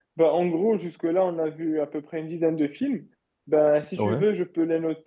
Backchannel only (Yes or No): Yes